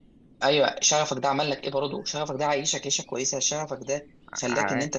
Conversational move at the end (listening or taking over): listening